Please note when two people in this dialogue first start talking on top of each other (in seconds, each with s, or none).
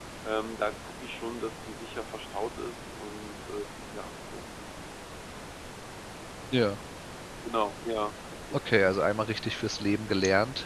none